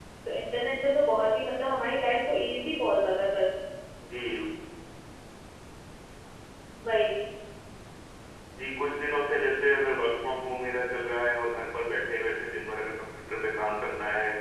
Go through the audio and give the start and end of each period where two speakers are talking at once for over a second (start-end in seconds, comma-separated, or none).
none